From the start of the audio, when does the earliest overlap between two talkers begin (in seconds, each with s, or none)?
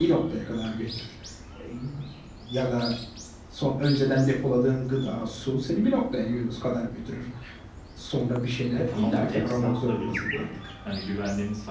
8.8 s